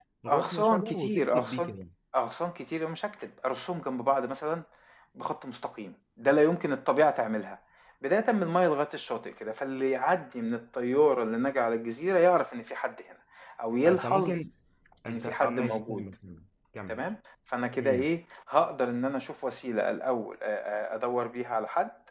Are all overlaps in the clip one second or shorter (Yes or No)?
No